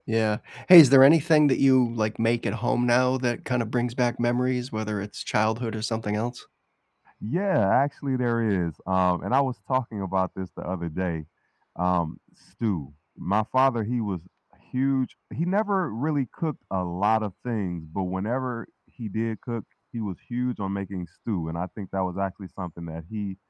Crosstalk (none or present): none